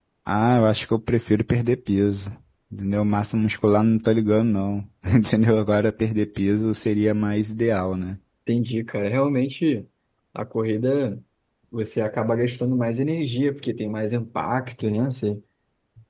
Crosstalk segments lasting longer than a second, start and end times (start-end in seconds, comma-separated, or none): none